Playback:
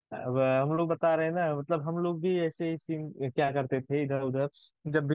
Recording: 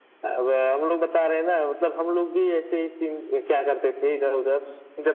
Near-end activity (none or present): none